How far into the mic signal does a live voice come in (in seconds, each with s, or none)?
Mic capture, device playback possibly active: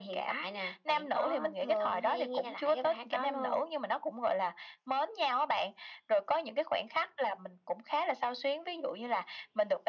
none